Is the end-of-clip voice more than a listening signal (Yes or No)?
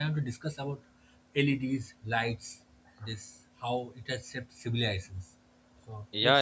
Yes